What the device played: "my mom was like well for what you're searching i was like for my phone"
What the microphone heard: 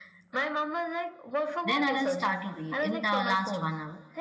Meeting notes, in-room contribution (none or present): present